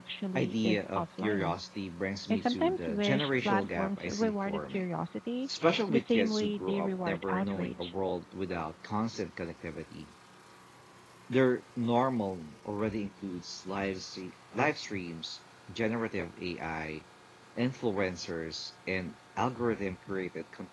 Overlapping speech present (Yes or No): Yes